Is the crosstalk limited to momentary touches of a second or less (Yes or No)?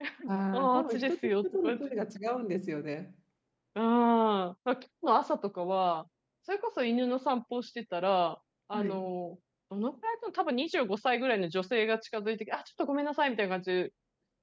No